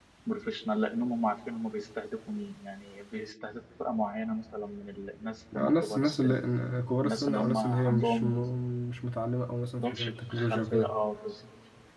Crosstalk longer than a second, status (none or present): present